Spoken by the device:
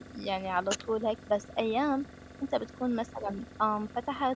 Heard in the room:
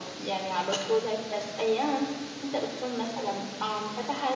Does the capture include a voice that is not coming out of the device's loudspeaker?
No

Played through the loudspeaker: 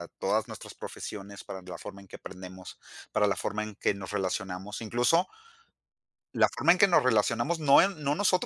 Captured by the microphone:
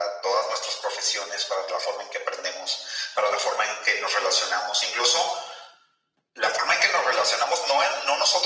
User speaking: No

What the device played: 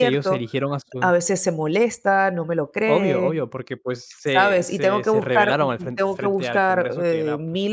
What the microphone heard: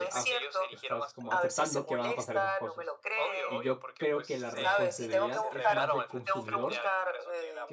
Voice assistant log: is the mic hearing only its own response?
No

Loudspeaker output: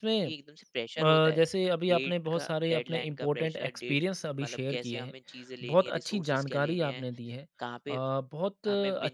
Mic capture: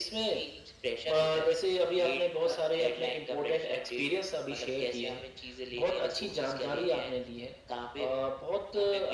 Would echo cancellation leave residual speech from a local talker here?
No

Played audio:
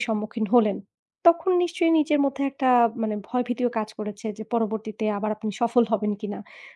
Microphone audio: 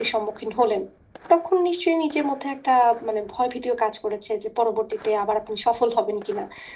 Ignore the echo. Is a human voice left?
No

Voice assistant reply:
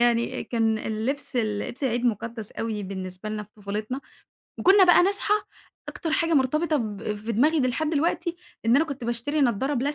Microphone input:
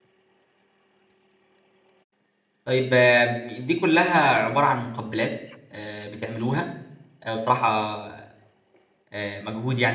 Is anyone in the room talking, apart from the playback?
Yes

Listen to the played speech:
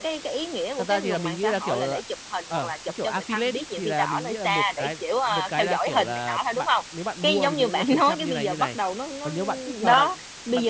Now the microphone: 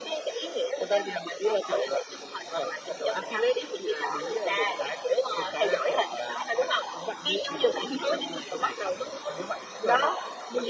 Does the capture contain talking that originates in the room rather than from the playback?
No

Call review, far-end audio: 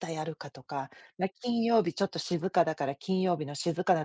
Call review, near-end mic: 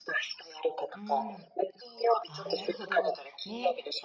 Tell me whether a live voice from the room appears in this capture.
Yes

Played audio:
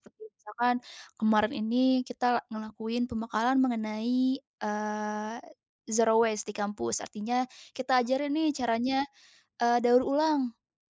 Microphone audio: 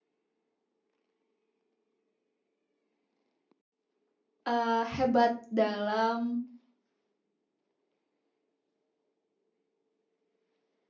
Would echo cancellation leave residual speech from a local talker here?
Yes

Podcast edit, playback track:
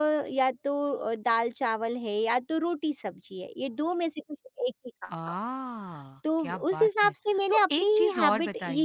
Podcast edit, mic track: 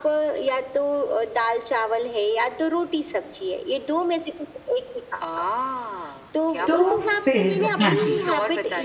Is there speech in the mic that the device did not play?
Yes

